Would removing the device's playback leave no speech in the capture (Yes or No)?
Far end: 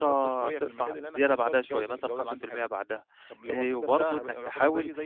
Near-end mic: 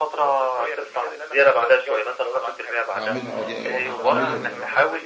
No